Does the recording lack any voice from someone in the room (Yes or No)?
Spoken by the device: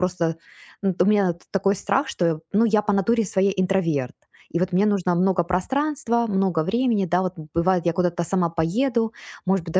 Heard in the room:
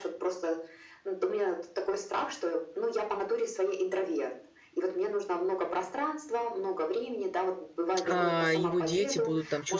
No